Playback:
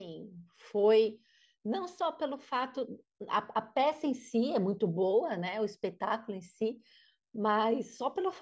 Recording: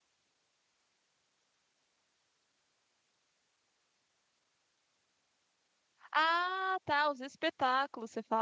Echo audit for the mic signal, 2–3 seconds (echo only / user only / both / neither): neither